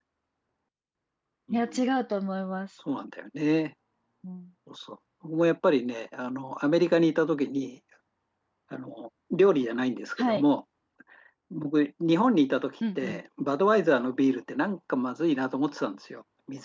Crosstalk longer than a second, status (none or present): none